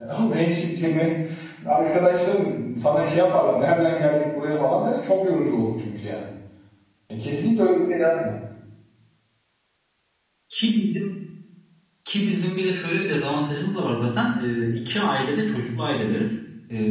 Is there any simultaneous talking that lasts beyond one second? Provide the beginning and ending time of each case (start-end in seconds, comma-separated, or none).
none